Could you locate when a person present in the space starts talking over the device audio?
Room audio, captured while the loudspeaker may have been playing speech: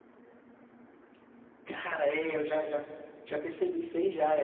none

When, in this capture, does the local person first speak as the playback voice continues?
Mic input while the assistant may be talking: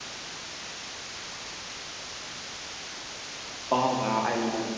3.7 s

